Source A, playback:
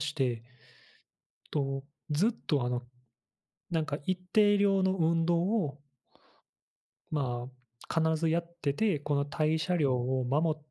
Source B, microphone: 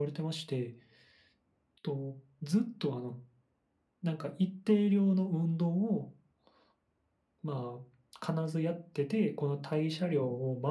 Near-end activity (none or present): none